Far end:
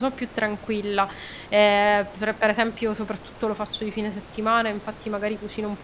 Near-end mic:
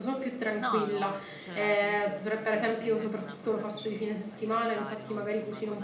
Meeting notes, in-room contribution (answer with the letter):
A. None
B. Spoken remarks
B